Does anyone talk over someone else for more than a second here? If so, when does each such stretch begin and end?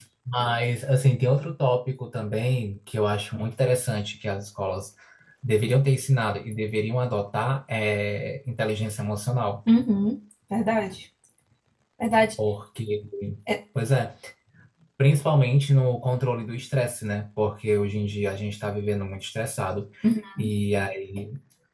none

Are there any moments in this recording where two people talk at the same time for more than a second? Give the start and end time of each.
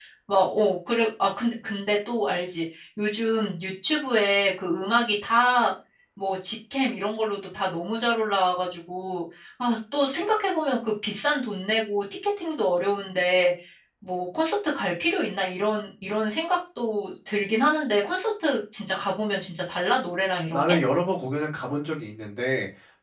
none

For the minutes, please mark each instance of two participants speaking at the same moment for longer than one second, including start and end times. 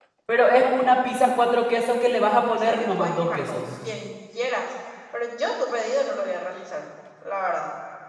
2.2-3.6

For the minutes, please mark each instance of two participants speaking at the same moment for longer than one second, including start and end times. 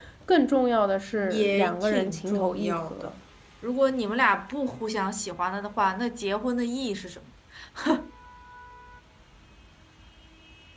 1.3-3.1

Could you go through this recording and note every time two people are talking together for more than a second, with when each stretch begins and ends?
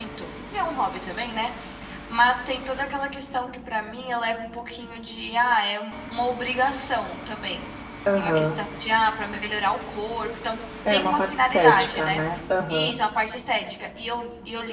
10.9-12.2

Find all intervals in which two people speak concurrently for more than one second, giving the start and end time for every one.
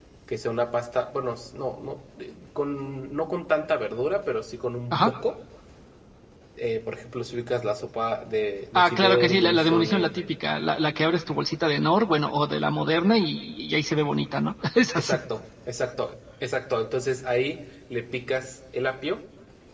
8.7-10.3

